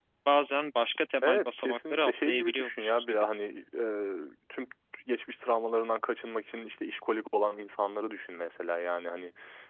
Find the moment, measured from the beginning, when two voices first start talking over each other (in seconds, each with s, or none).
1.2 s